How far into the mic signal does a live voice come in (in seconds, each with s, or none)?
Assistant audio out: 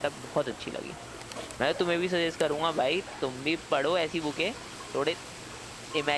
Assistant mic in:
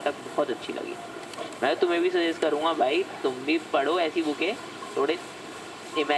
none